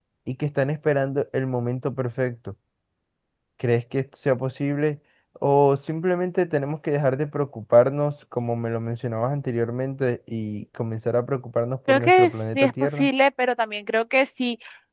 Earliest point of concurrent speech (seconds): 11.9 s

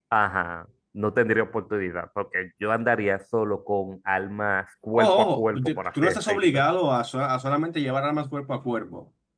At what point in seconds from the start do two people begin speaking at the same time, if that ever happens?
4.9 s

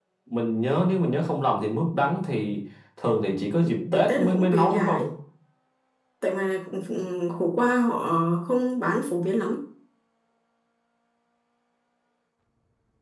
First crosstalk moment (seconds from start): 3.6 s

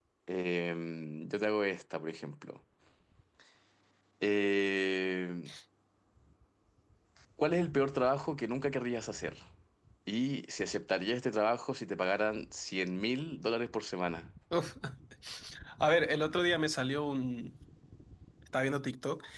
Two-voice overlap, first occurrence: none

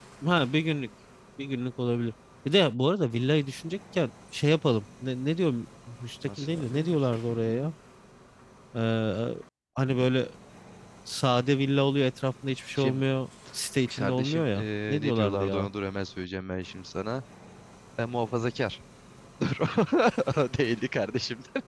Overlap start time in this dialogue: 6.4 s

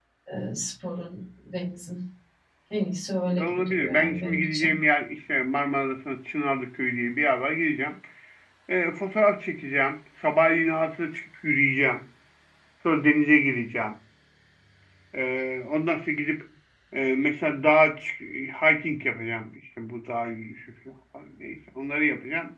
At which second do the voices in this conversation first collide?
3.3 s

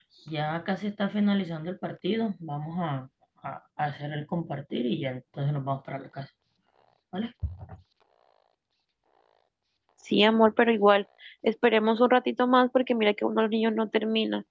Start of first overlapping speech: none

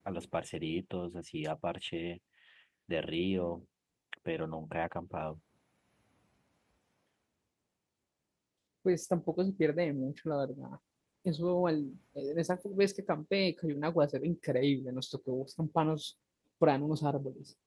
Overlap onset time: none

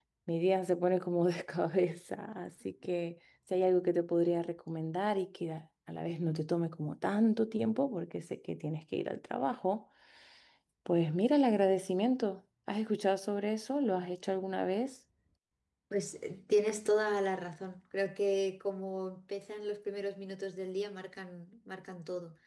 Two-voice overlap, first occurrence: none

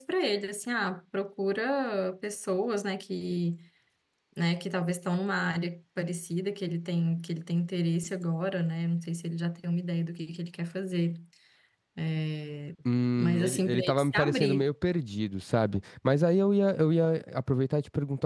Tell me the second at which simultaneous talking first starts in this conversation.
13.2 s

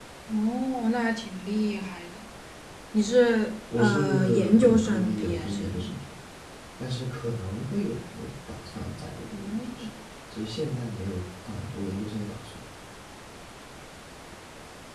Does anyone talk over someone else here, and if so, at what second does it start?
3.8 s

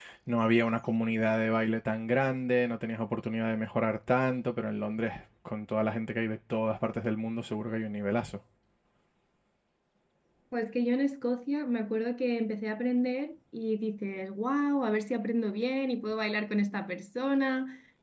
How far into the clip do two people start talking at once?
none

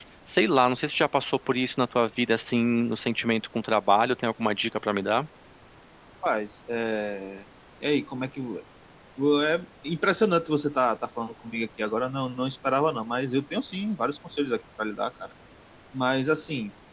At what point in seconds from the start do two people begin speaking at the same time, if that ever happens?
none

